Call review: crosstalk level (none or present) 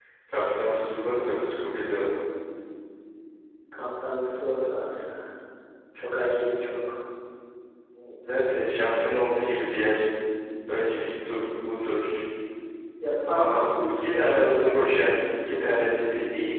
present